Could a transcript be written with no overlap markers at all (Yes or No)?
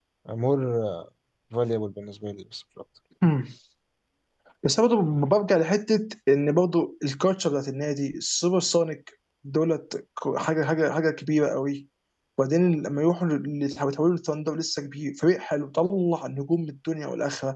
Yes